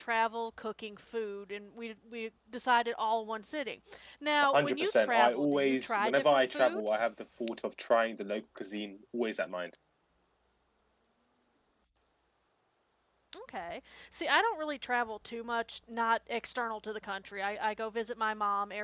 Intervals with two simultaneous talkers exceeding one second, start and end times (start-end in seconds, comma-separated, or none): 4.5-7.1